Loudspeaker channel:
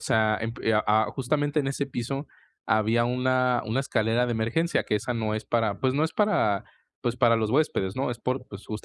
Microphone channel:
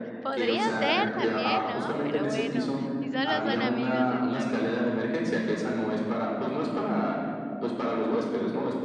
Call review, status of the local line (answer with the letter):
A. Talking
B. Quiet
A